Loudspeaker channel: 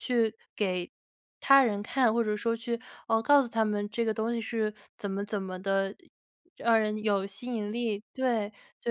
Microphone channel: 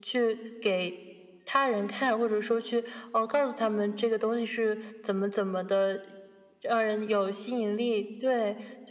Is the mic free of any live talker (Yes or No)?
Yes